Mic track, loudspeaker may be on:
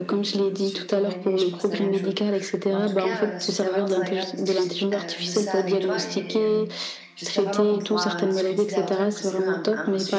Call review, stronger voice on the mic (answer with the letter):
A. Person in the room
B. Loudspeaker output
B